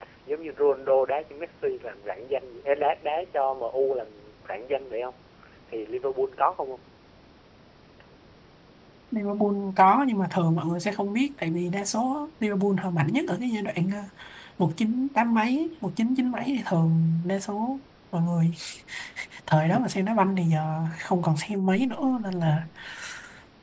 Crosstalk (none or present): none